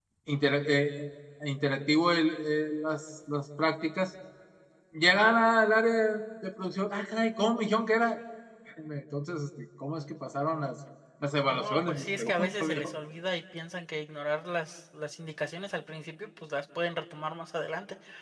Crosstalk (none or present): present